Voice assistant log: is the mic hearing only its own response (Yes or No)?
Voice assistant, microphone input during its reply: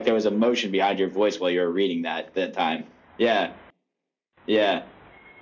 Yes